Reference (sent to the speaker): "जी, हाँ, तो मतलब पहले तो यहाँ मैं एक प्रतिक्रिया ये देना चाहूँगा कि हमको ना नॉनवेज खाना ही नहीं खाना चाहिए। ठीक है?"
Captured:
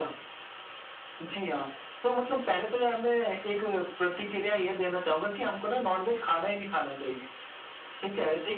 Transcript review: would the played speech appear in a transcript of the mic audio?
Yes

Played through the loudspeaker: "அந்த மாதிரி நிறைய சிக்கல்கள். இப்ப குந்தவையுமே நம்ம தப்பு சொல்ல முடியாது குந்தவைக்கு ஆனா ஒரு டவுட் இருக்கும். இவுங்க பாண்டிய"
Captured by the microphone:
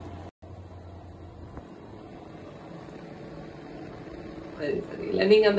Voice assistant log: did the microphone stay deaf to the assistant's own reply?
Yes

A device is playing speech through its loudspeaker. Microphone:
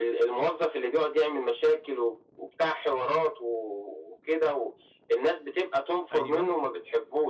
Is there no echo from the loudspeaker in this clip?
No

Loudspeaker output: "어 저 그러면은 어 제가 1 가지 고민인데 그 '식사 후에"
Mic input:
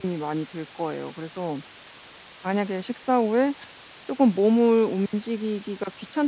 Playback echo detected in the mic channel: No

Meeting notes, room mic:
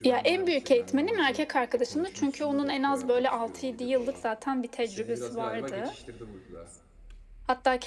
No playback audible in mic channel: No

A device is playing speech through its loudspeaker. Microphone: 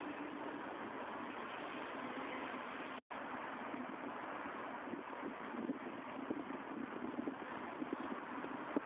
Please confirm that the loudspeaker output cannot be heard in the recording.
Yes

